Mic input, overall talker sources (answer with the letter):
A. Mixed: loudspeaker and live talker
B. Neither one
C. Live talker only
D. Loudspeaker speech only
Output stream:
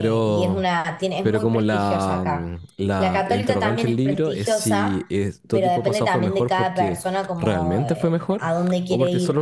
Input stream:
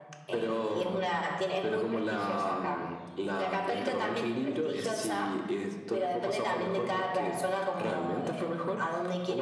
D